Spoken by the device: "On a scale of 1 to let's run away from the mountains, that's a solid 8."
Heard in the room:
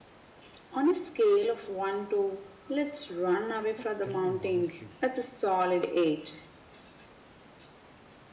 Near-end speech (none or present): present